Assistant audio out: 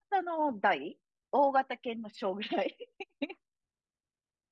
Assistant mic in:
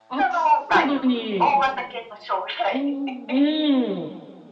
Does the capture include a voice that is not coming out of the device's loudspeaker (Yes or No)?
Yes